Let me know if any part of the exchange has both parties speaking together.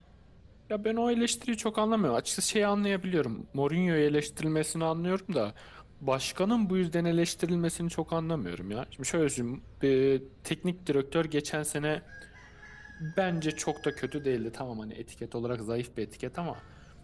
No

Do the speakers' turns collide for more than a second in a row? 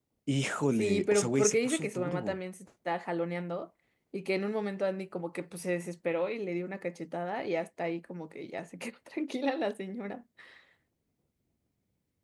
Yes, from 0.7 s

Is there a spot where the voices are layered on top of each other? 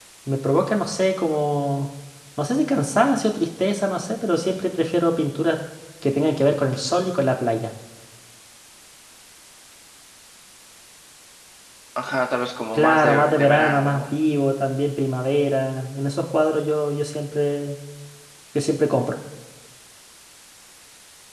Yes, from 12.7 s

